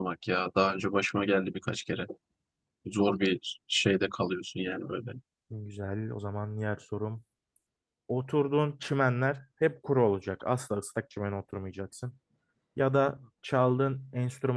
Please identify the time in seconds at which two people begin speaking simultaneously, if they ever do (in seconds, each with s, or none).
none